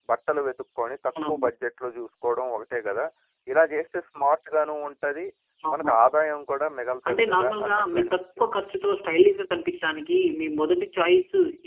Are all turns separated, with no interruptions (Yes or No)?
No